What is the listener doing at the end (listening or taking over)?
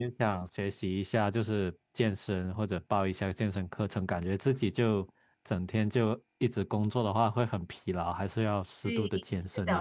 taking over